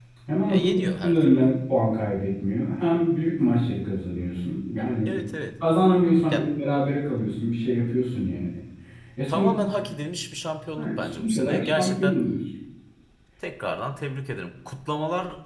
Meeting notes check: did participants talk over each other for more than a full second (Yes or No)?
Yes